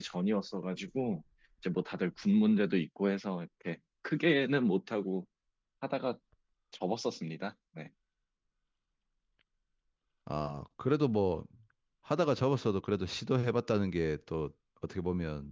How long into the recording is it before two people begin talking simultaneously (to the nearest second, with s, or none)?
none